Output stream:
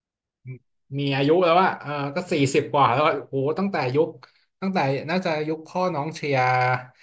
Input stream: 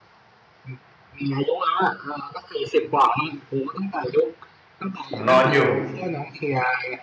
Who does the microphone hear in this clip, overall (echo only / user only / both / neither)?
both